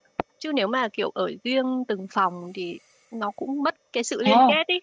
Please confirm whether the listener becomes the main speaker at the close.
Yes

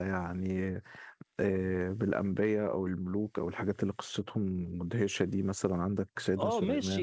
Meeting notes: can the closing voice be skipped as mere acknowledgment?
No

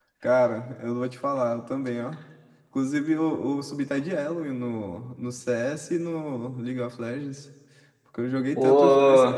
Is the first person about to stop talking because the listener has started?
Yes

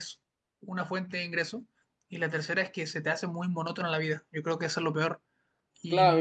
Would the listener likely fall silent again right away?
No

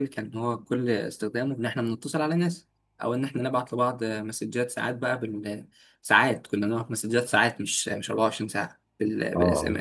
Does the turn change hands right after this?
No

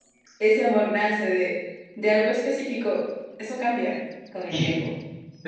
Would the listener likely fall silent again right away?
No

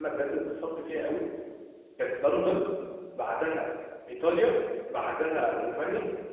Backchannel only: Yes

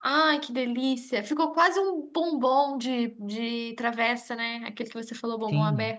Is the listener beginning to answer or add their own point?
Yes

